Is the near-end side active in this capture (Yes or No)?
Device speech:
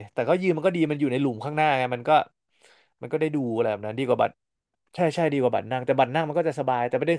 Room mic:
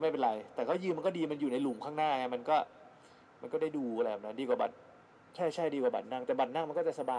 No